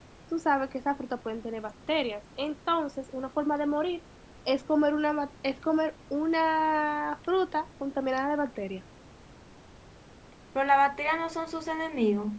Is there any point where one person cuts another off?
No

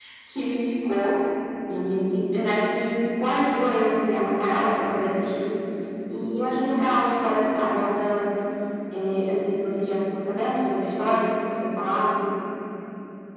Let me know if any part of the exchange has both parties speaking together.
No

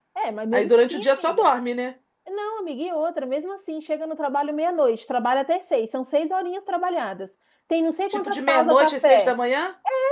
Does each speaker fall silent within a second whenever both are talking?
No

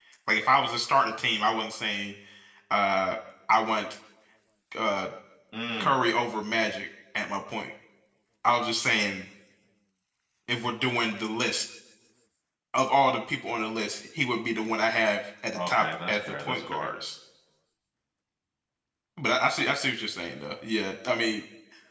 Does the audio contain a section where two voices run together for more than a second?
Yes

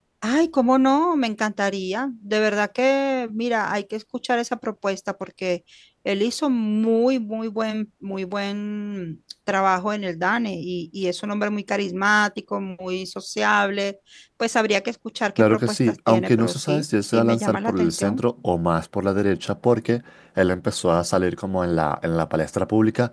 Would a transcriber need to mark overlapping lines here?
Yes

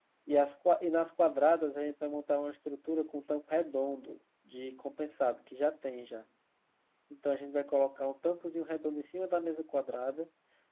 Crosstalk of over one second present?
No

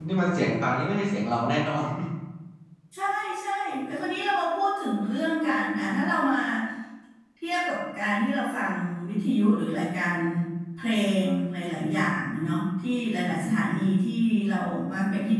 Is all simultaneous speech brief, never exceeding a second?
Yes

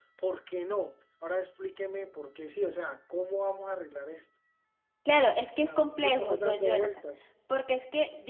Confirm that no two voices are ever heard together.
No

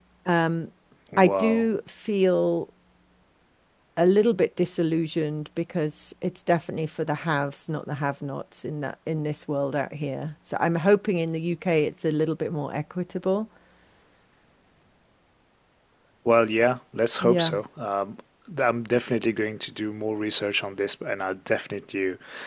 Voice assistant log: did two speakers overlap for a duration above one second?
No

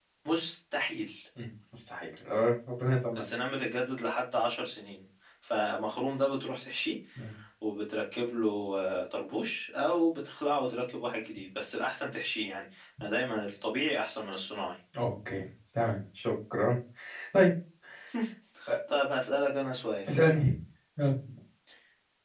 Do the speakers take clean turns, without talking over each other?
Yes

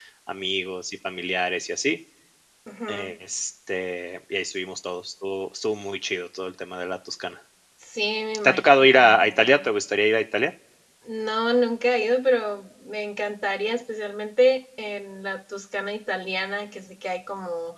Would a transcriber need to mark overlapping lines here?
Yes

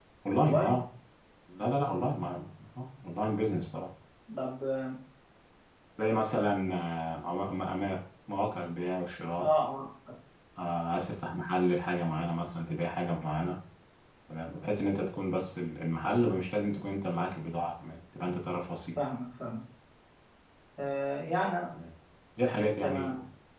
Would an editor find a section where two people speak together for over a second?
No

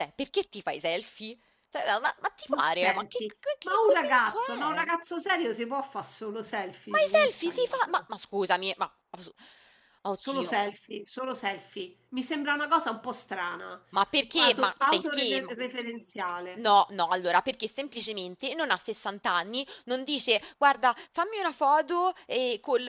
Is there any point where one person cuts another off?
Yes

